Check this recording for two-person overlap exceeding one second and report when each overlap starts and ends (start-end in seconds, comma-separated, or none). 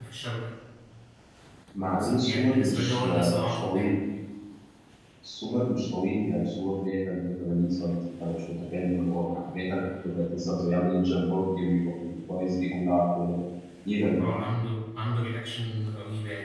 2.0-4.0